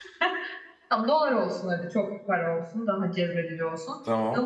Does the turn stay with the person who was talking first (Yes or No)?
Yes